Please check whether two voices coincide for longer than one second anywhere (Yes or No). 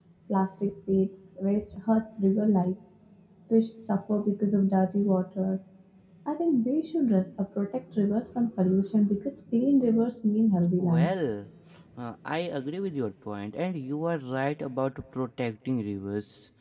No